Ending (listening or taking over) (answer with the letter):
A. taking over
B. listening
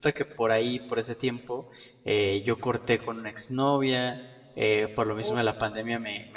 B